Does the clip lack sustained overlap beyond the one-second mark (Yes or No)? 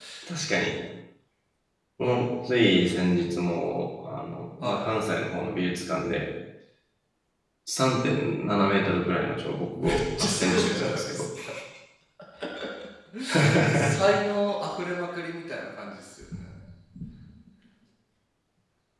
No